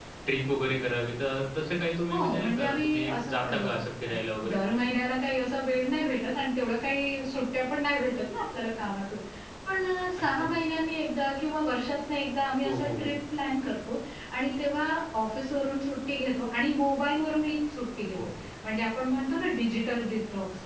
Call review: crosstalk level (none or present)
present